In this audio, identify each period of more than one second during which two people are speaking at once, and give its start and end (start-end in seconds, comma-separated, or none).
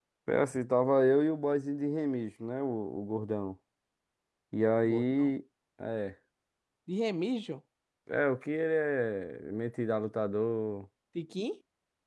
none